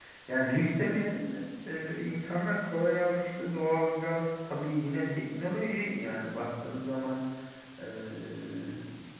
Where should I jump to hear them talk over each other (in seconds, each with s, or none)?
none